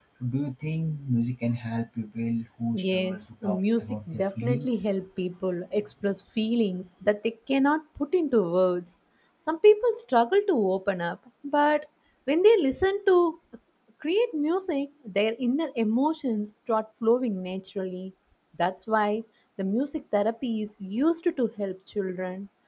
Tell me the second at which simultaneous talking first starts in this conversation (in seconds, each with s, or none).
2.7 s